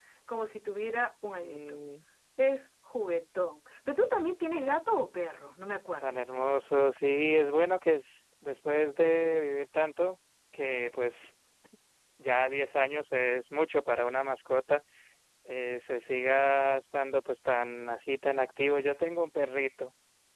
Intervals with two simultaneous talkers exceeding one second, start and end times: none

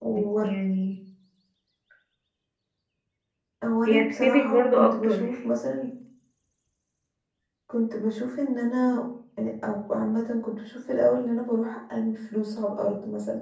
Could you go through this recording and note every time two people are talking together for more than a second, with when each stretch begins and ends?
3.9-5.3

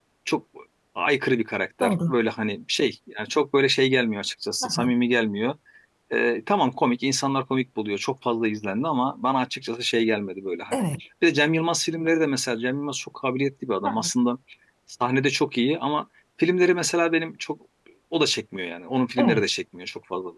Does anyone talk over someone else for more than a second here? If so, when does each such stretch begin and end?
none

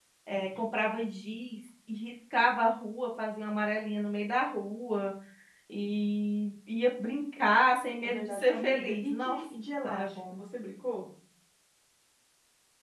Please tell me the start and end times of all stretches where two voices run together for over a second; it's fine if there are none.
8.0-9.4

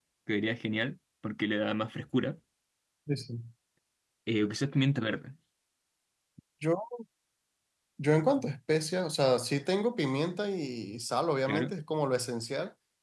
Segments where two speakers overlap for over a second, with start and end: none

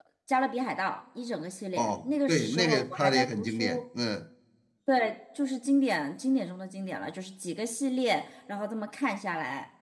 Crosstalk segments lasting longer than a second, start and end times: 1.8-3.8

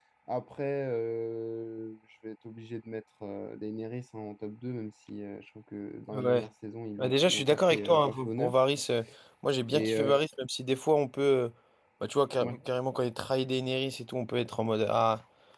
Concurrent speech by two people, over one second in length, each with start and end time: 7.0-8.6

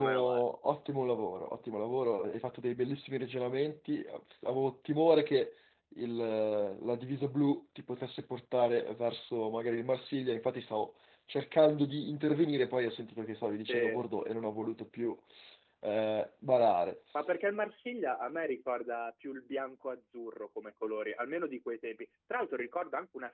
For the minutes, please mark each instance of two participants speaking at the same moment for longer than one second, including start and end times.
none

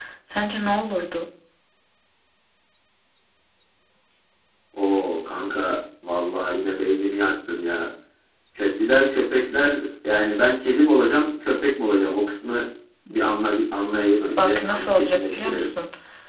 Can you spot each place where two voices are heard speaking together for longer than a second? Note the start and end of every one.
14.4-15.7

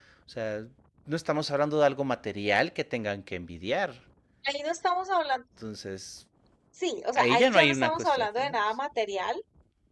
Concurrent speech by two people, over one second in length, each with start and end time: 7.2-8.6

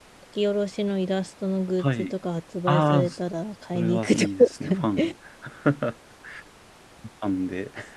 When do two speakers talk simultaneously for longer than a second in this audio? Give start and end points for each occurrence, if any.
3.7-5.1

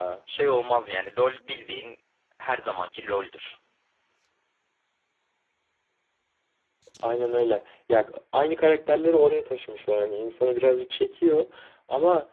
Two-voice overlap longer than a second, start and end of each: none

